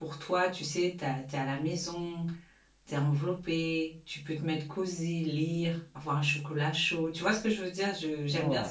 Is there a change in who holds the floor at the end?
No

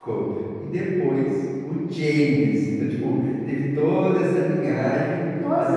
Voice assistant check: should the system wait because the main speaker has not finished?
No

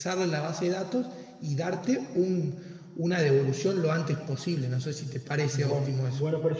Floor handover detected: Yes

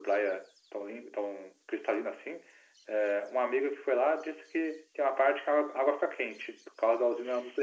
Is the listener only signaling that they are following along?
No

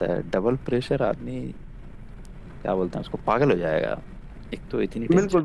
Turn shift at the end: Yes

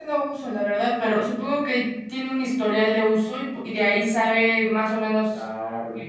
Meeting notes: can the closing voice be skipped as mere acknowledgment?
No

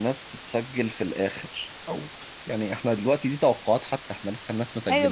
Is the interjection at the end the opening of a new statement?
Yes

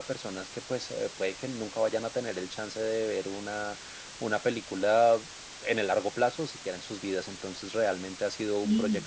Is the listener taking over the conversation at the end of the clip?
No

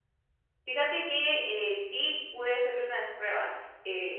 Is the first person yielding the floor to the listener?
No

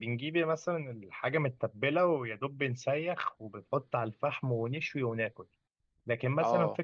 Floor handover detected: No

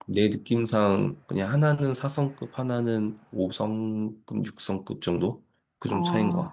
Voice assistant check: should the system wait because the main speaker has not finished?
No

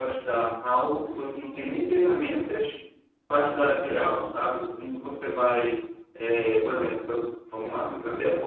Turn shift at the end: Yes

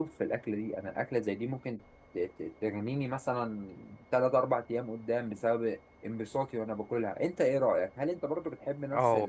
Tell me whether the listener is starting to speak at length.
Yes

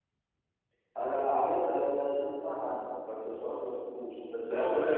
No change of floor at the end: No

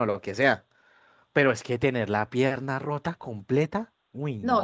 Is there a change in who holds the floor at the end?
Yes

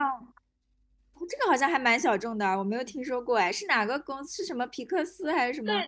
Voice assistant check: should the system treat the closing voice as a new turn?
Yes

